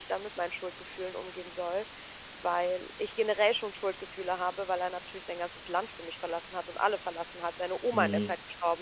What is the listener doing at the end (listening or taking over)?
listening